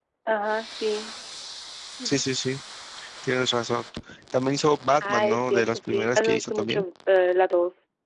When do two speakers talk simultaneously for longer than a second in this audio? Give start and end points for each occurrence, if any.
5.0-6.8

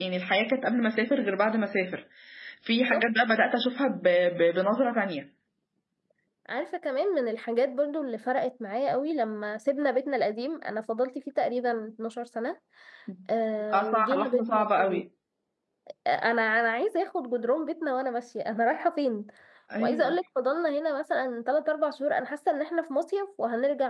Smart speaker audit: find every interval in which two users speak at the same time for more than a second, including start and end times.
13.7-15.0

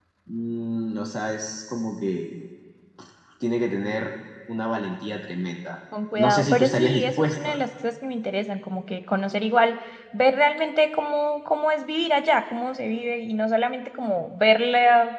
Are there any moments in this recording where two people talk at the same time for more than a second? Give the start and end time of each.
6.2-7.5

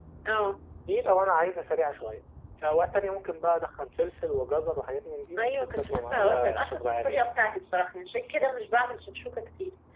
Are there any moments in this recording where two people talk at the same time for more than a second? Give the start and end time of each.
5.4-7.2

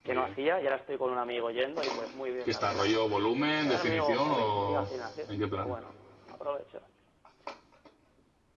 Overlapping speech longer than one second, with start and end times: 3.6-4.9

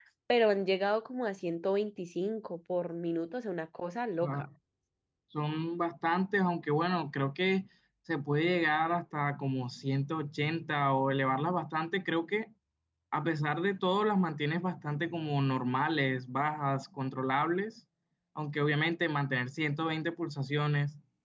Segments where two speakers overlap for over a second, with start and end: none

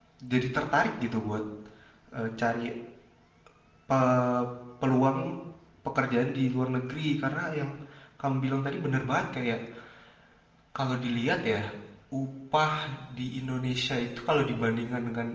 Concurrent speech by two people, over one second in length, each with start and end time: none

